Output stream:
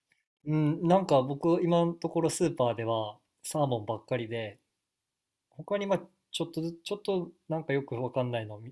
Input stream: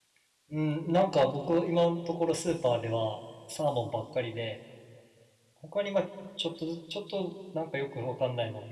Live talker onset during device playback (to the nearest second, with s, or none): none